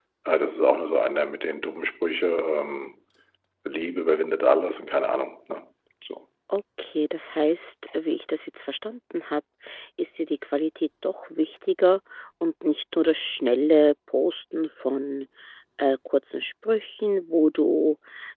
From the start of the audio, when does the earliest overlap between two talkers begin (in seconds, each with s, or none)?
none